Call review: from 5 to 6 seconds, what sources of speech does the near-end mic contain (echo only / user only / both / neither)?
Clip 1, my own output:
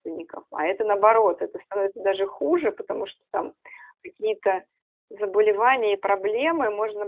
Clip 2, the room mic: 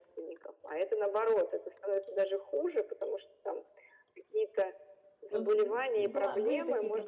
both